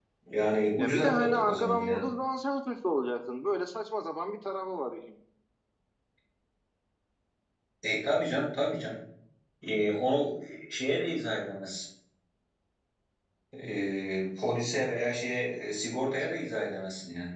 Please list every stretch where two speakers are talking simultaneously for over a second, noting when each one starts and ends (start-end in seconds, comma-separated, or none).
0.8-2.0